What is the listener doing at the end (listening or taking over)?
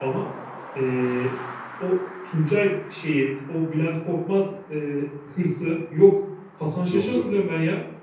listening